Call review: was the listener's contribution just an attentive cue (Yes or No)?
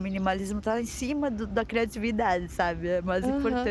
No